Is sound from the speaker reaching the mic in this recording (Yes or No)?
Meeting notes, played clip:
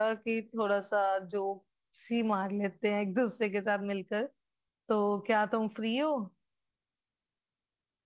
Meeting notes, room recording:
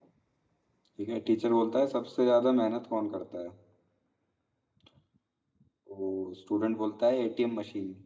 No